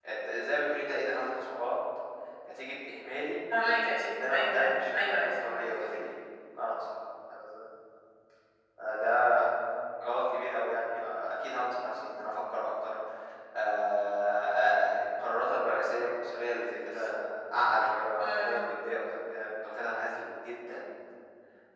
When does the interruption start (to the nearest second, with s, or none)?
4 s